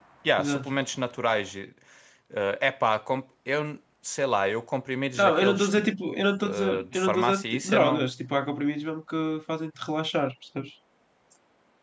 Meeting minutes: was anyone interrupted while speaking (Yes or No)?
Yes